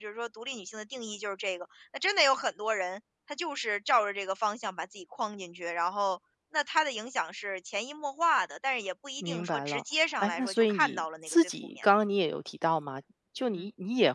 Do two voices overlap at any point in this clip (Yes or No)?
Yes